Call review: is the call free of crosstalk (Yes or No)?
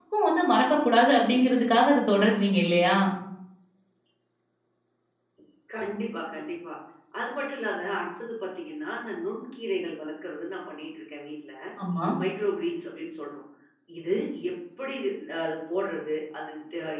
Yes